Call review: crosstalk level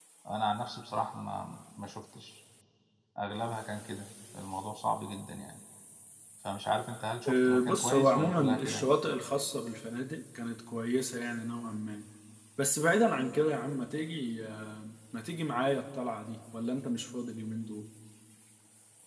present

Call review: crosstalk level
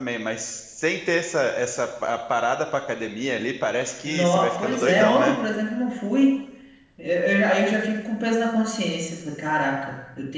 present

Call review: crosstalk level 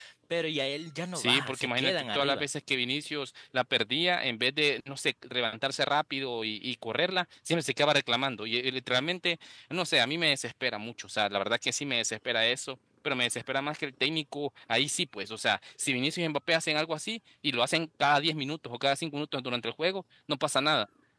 present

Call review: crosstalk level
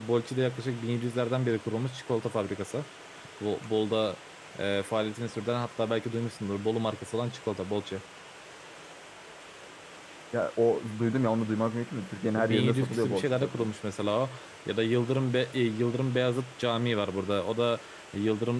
present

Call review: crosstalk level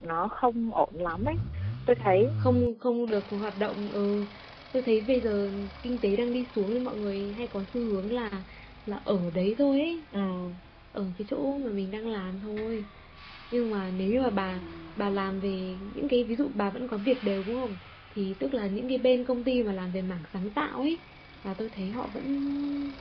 none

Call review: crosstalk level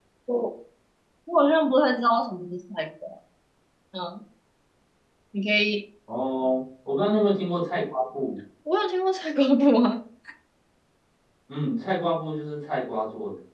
none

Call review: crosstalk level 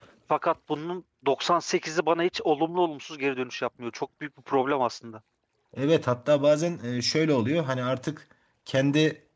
none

